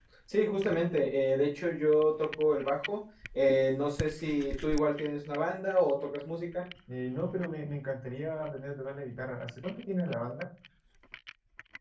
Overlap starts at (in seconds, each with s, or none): none